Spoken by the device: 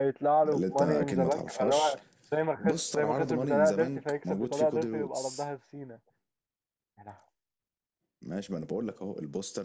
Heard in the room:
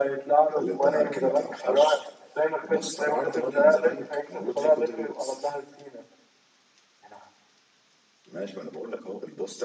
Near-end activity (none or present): none